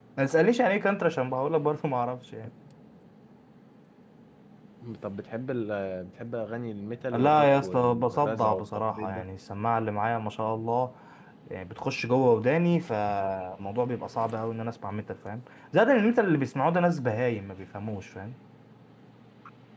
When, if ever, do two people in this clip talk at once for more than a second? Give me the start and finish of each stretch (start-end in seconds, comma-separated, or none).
7.1-9.2